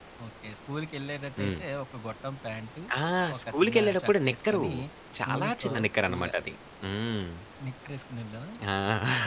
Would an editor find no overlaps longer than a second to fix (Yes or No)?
No